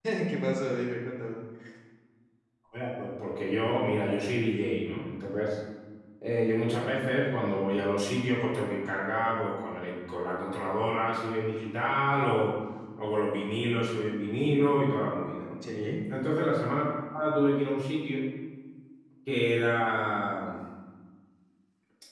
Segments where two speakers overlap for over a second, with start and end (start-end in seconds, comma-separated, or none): none